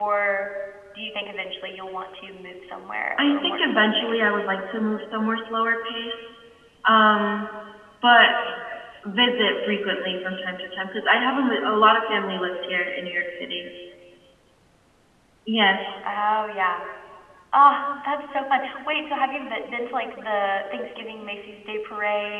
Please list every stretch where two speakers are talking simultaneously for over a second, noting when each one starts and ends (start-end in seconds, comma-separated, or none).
3.2-4.4